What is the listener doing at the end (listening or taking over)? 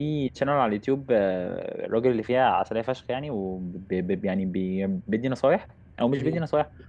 listening